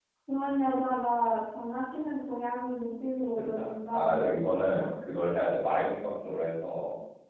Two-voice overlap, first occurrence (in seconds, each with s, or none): 3.4 s